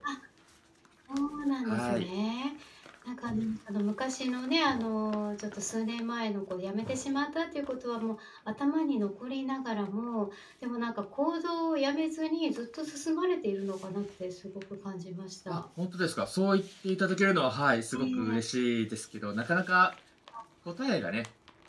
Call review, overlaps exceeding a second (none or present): none